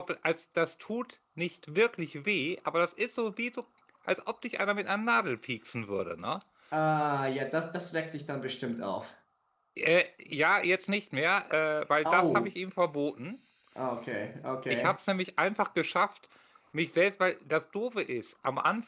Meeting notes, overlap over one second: none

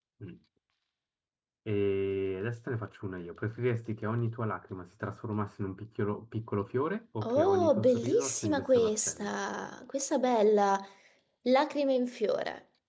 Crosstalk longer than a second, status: present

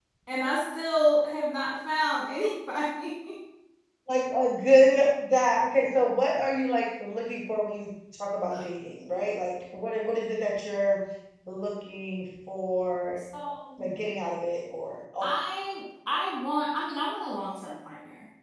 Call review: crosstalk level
none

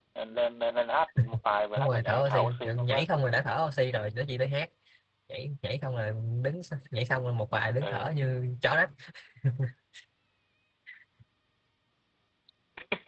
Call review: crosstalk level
present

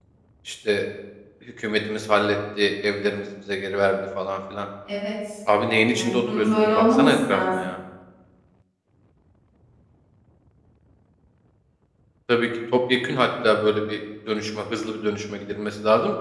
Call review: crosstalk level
present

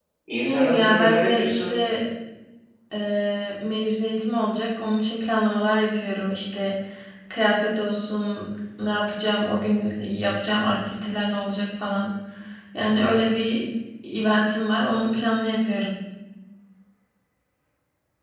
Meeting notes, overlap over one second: present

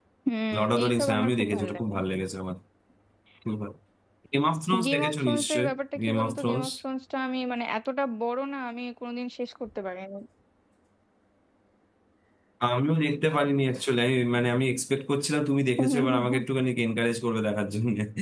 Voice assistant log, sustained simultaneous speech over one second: present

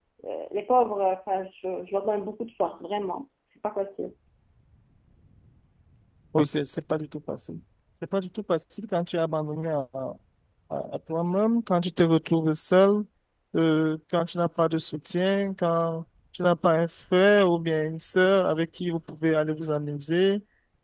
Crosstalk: none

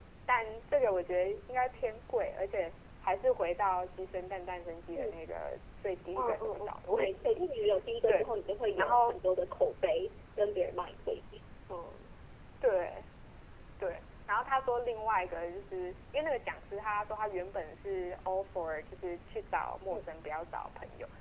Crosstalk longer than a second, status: present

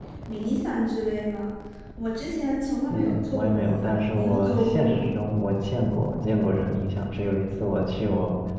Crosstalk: present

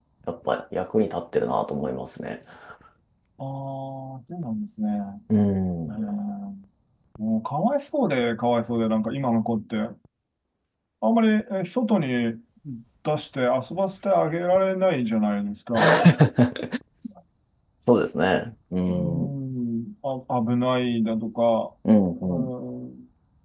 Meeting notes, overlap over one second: none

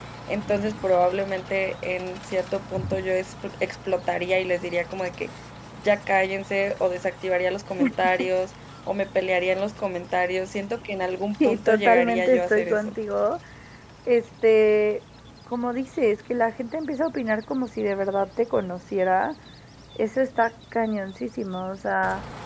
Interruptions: present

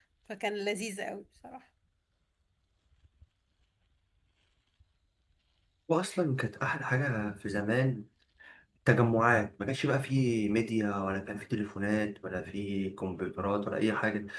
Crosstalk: none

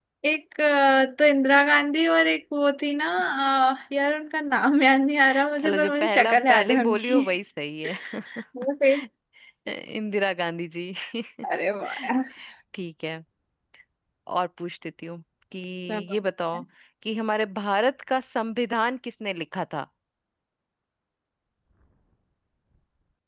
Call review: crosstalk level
present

